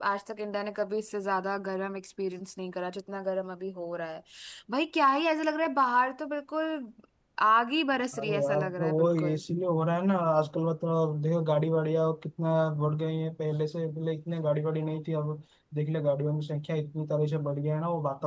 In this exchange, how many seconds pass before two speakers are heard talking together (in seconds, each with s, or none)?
8.2 s